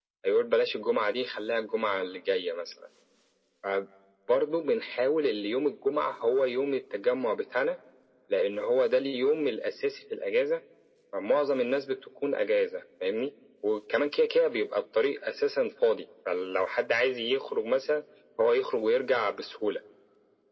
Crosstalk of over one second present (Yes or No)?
No